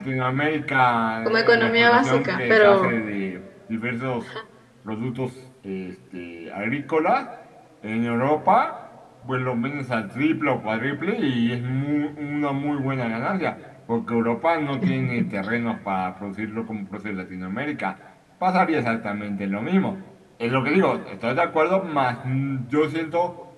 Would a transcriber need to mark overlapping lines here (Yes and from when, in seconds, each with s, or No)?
Yes, from 1.2 s